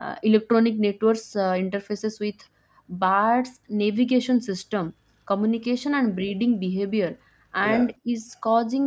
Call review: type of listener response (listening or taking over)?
listening